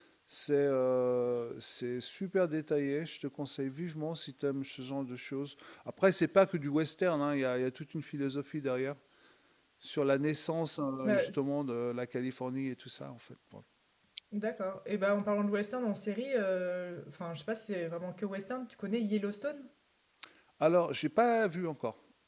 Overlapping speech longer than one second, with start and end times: none

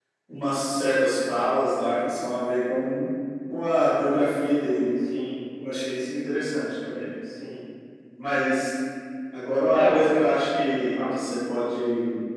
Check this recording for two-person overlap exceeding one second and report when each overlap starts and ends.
none

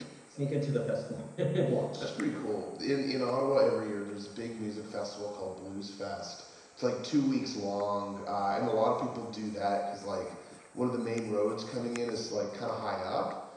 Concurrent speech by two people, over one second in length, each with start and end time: none

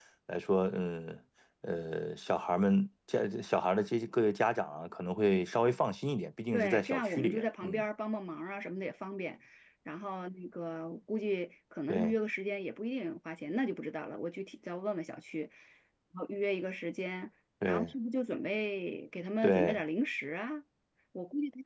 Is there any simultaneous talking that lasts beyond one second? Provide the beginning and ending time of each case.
6.5-7.8

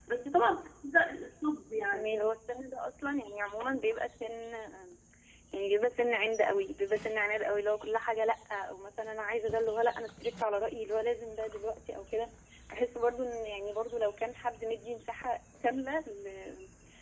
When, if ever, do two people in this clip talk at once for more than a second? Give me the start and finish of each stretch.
none

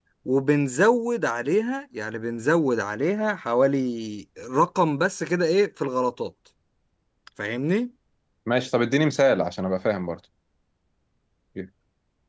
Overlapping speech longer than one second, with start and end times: none

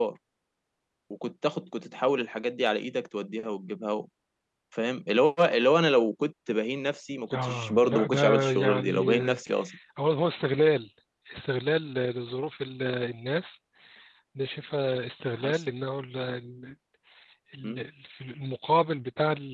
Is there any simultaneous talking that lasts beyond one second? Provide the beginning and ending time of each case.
7.3-9.4

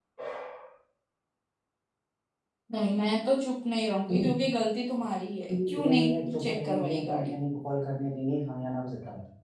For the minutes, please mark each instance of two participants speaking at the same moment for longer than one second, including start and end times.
5.7-7.3

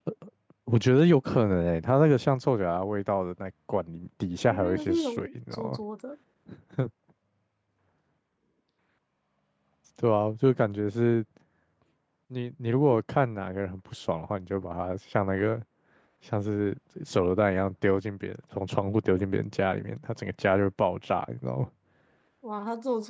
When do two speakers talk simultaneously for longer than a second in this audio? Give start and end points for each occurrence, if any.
4.5-5.8

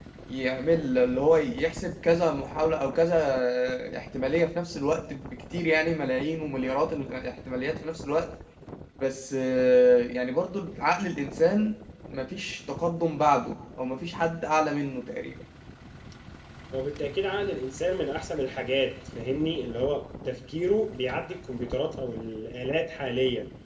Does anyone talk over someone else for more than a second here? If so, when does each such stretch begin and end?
none

